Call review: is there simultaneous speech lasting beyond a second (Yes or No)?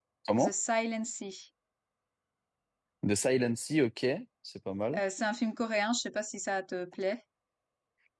No